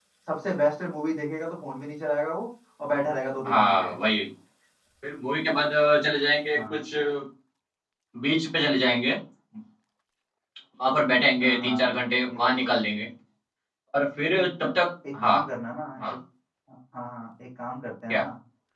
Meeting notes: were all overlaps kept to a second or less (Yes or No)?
Yes